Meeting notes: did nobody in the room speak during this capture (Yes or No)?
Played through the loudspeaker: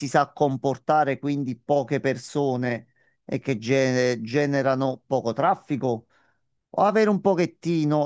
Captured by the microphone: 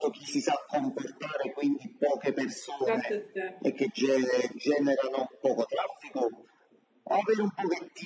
No